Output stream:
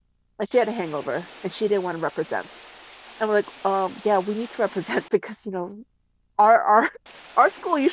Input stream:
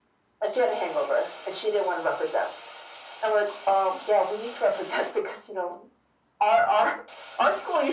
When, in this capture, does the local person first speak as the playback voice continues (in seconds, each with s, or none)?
none